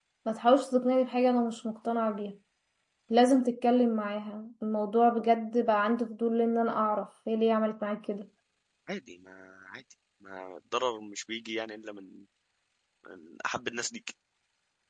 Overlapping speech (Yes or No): No